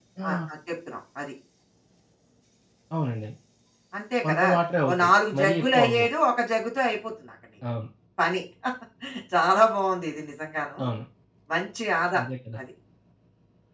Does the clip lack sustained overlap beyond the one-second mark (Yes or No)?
No